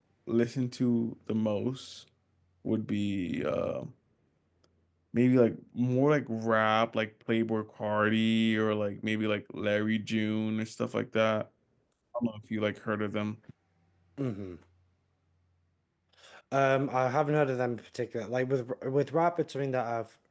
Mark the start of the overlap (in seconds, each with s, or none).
none